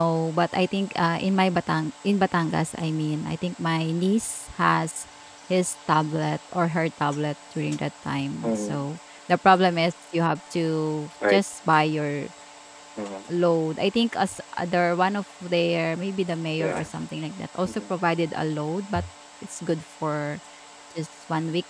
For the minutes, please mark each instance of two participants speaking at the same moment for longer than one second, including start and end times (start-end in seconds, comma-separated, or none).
none